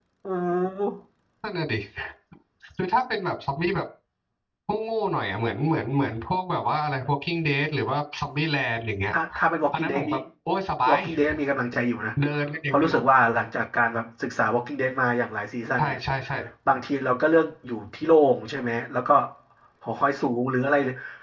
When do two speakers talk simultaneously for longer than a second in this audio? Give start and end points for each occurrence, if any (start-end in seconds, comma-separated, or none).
none